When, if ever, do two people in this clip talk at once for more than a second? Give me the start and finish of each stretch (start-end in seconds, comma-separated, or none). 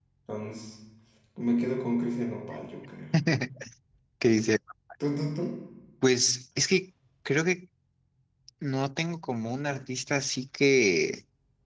none